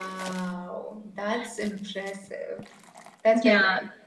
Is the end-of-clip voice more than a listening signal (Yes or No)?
Yes